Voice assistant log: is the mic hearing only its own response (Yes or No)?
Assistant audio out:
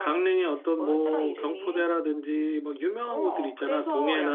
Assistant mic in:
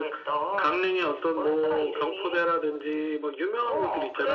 Yes